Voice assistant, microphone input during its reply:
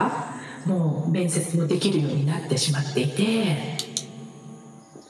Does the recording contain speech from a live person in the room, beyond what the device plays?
No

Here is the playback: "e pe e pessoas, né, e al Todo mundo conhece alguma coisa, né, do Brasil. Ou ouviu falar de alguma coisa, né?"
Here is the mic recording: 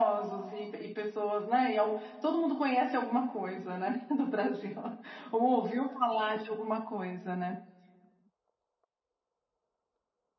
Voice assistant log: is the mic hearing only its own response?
Yes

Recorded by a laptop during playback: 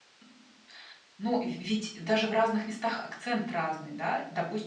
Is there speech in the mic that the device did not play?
Yes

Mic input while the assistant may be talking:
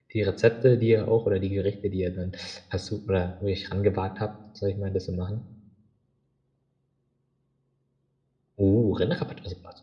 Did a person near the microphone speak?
Yes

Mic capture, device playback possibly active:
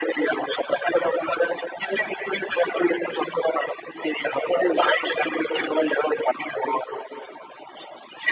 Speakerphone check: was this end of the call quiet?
Yes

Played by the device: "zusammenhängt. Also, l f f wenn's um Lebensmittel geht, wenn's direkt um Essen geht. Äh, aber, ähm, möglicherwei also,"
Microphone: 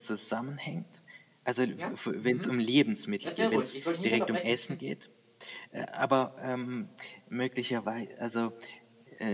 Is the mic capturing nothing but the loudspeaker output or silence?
No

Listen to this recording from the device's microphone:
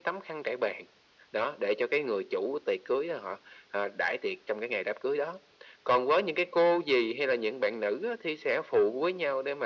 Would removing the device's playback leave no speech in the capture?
Yes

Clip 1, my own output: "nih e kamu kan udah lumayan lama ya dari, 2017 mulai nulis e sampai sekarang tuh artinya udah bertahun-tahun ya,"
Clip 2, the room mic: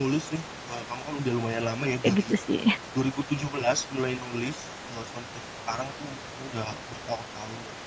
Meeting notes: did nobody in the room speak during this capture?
No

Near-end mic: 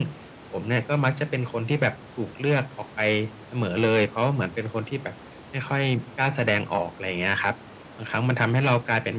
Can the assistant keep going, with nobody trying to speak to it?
Yes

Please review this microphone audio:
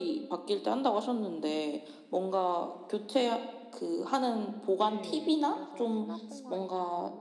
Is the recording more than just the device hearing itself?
Yes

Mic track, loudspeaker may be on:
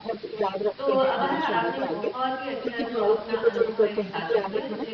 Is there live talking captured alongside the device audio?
Yes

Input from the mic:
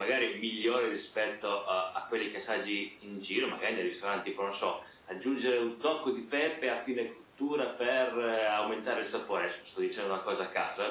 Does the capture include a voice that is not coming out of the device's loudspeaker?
No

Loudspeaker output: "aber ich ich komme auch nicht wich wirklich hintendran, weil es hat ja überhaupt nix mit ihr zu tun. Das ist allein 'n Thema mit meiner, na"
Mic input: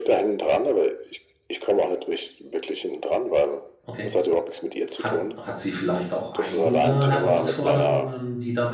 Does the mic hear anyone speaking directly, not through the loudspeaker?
Yes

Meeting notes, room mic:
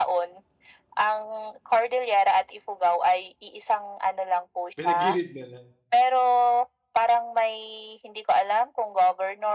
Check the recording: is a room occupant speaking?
Yes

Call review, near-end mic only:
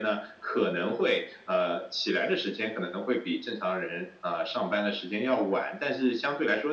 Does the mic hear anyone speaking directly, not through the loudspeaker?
No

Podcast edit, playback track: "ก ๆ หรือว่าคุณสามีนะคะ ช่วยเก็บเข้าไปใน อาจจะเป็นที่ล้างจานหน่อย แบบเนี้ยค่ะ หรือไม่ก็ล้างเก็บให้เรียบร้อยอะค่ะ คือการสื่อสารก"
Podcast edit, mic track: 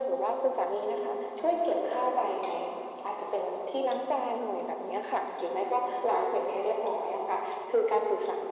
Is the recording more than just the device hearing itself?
No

